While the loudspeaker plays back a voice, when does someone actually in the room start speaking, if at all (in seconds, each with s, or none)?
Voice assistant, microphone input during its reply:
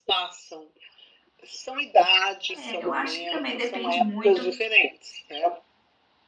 2.5 s